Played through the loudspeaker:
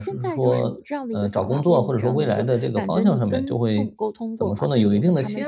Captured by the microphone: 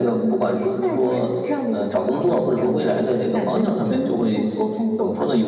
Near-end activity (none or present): none